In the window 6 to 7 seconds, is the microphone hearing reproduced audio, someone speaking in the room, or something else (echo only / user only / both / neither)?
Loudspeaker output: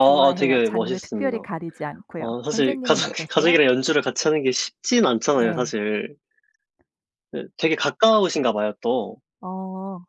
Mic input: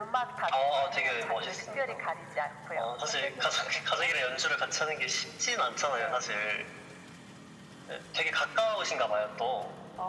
echo only